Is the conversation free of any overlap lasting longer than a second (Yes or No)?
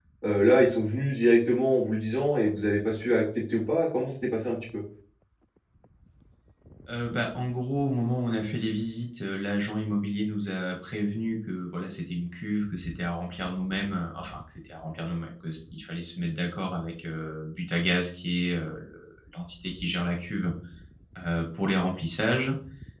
Yes